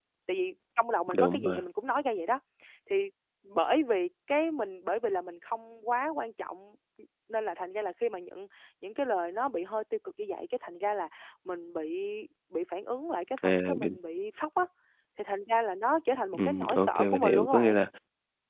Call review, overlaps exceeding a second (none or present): present